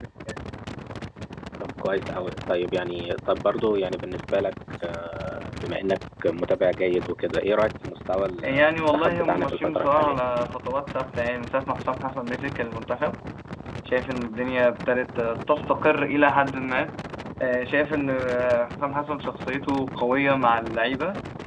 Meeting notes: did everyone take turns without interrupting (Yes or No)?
No